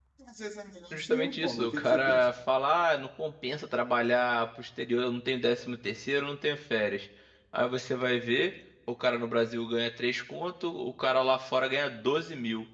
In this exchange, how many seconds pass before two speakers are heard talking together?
1 s

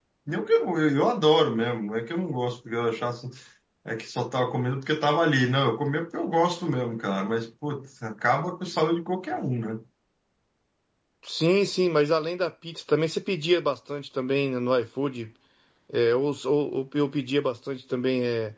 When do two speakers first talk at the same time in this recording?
none

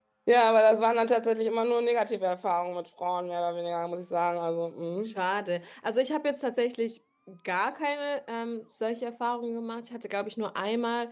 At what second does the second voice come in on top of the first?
none

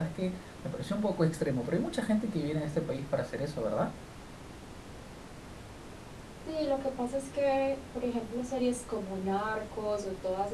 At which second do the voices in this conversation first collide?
none

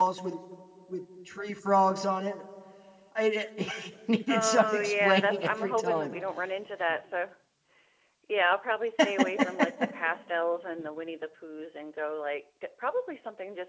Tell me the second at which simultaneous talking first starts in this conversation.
4 s

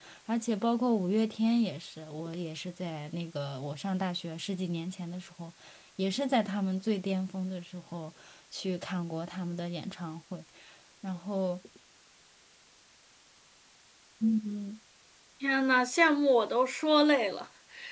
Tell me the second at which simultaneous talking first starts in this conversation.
none

